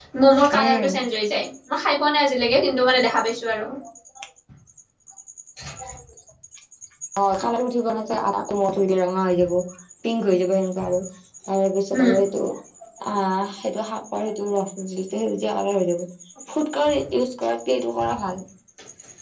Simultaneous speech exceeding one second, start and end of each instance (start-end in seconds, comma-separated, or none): none